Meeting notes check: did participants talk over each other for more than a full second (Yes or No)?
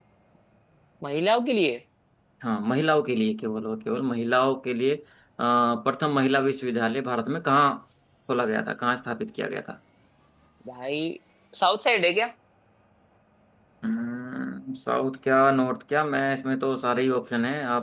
No